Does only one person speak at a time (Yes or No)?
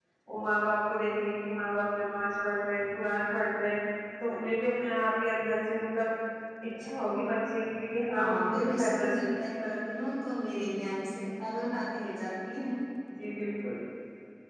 No